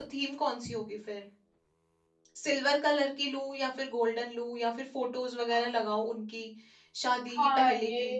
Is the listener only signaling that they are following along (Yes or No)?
No